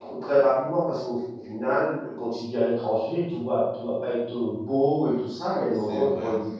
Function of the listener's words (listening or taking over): listening